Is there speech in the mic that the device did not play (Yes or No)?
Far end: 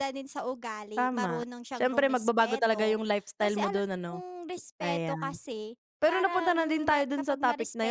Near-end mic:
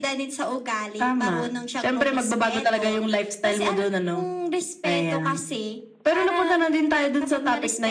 No